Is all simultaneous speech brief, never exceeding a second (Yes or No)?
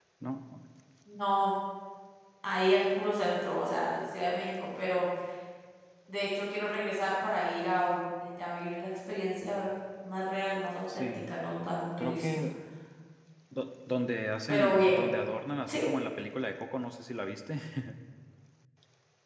Yes